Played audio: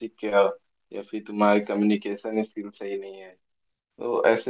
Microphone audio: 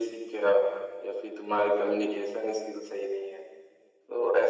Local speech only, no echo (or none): none